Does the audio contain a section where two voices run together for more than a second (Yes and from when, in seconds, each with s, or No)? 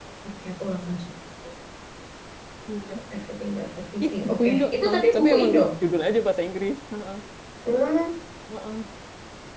Yes, from 4.0 s